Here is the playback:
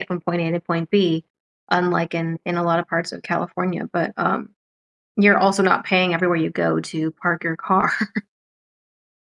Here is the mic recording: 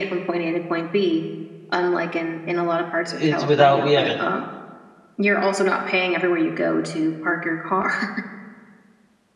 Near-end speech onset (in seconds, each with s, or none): 3.1 s